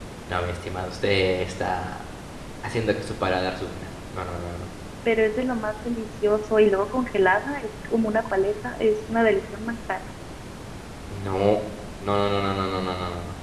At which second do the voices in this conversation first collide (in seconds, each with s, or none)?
none